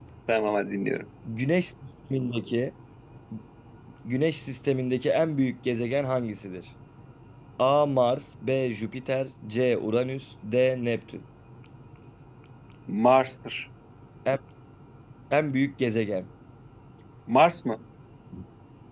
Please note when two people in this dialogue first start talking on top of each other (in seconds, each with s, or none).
none